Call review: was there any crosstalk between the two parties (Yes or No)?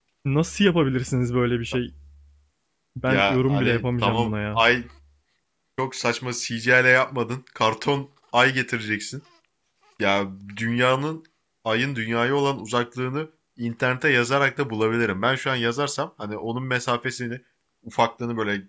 Yes